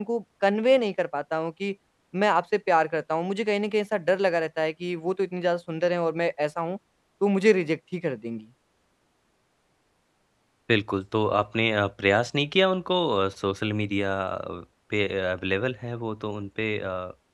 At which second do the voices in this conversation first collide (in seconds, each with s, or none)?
none